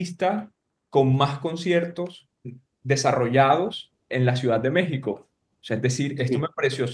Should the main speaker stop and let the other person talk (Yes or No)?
No